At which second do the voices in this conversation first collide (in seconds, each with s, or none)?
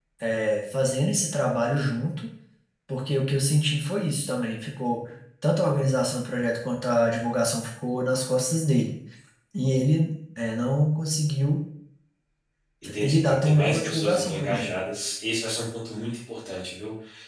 13.0 s